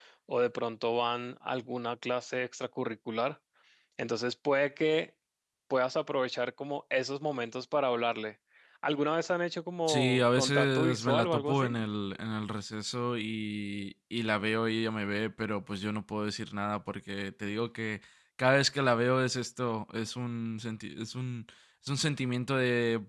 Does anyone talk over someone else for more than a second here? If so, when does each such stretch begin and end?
9.9-11.8

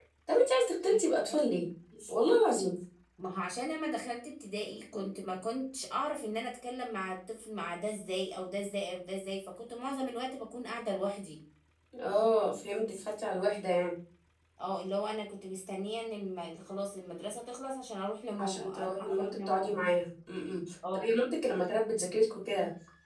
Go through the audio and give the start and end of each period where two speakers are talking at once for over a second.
18.3-19.8

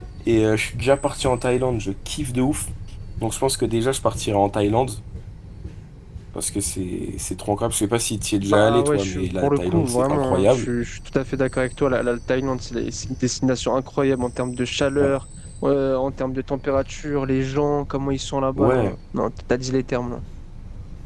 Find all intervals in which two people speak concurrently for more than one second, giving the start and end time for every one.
8.4-10.7

